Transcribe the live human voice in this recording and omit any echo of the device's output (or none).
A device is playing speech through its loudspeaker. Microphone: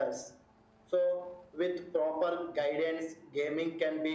none